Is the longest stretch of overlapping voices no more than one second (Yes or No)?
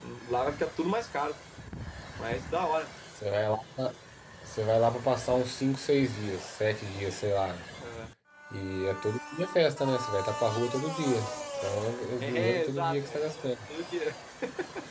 No